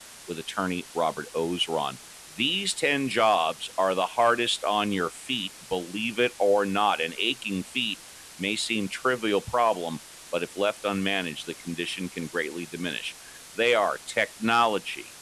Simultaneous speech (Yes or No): No